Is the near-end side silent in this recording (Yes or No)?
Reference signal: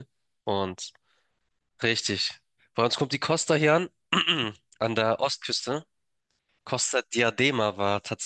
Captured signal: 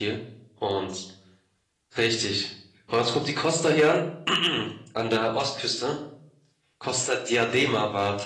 Yes